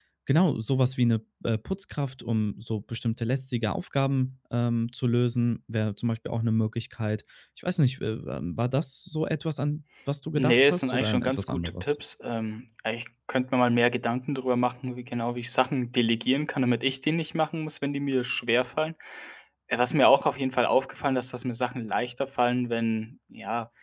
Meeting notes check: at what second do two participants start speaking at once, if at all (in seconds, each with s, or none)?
10.4 s